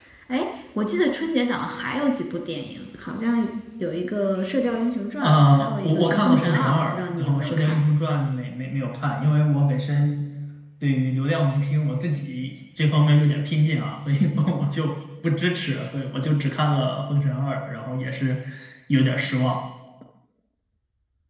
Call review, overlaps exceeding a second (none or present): present